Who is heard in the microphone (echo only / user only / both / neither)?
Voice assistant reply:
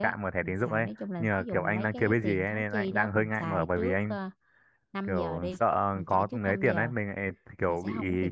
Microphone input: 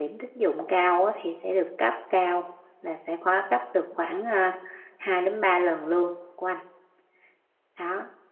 user only